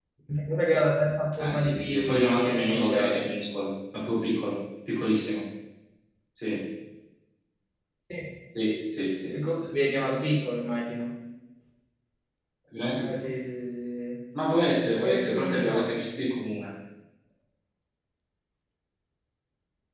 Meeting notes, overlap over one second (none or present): present